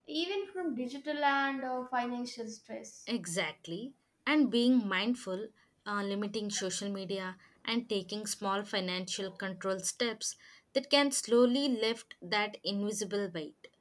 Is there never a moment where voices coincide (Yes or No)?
Yes